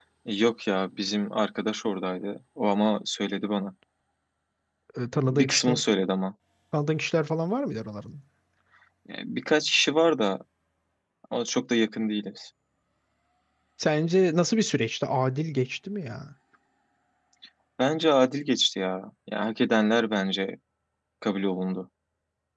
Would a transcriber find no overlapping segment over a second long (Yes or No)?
Yes